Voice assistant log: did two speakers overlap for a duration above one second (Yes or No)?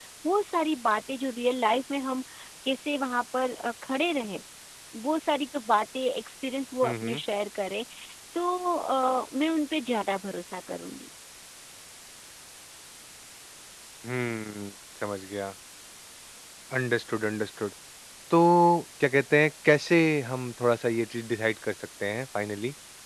No